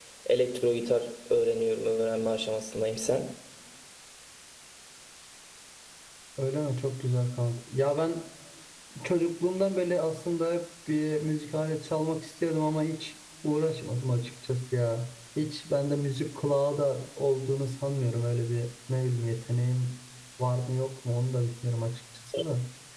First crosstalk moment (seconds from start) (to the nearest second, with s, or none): none